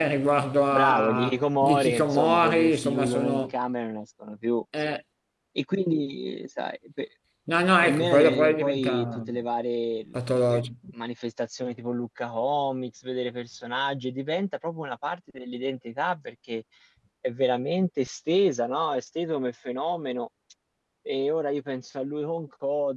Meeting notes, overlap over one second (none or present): present